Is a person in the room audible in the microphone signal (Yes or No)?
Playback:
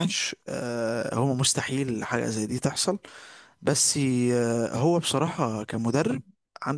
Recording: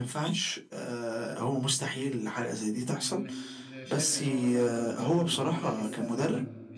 Yes